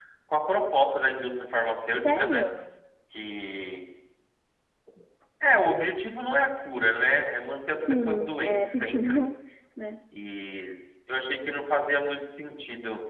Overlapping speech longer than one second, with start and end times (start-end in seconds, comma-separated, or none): 7.9-9.2